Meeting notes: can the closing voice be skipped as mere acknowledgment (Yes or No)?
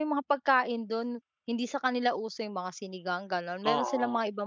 No